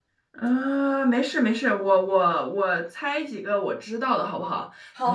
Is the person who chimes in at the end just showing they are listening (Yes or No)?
No